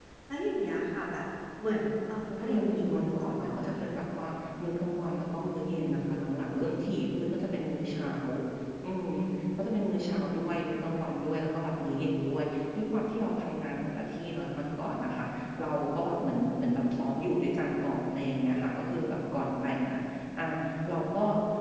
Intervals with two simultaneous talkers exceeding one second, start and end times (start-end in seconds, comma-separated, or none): 2.4-3.9